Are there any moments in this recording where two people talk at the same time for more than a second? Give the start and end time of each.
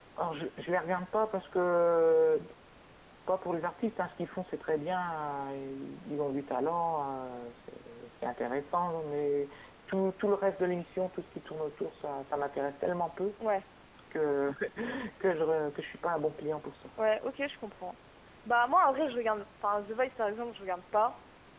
none

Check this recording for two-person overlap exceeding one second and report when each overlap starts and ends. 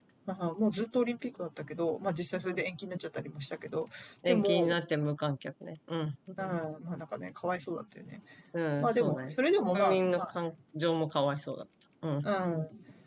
8.8-10.3

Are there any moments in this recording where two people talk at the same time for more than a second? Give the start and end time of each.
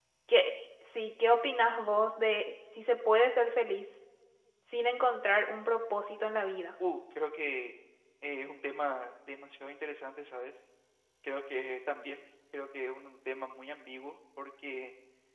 none

